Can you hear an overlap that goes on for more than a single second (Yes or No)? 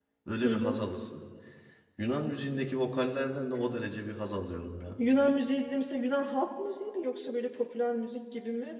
No